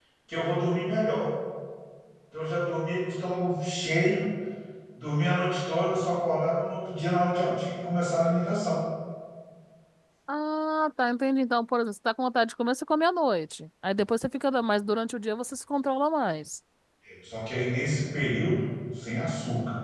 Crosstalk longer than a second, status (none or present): none